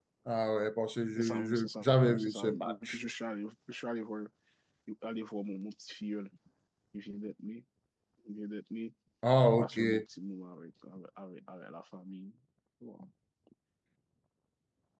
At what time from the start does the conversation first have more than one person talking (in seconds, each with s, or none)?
1.2 s